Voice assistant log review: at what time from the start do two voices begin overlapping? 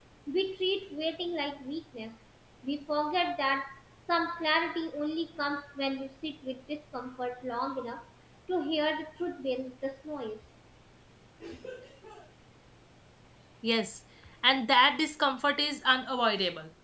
none

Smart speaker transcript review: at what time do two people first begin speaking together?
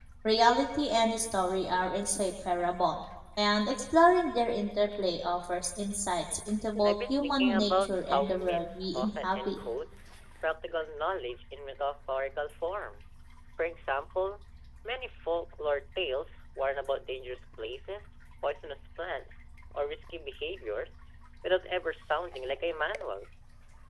6.8 s

